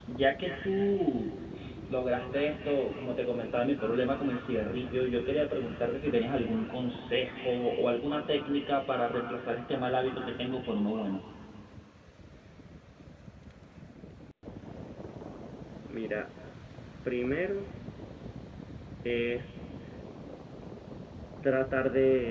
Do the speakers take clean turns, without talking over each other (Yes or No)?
Yes